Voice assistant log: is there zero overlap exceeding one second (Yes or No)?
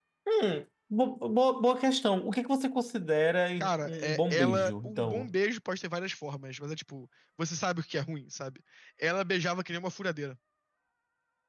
No